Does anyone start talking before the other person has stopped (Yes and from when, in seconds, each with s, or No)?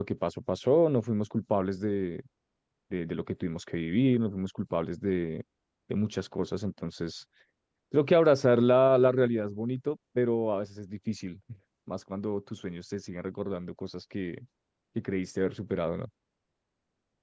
No